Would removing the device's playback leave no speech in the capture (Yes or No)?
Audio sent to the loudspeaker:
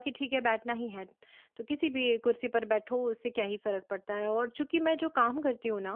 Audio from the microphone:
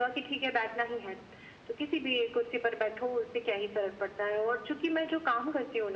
Yes